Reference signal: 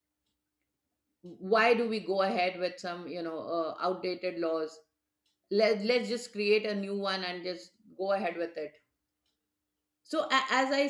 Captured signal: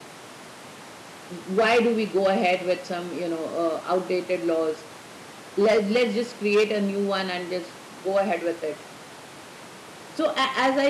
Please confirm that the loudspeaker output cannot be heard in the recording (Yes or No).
No